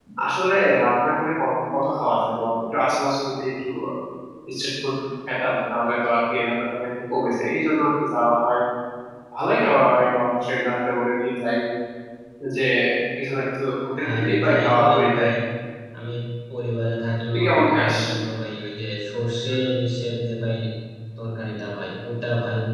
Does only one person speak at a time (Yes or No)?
No